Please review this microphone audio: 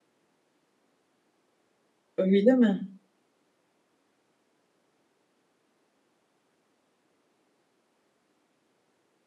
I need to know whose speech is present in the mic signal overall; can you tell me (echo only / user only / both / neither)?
user only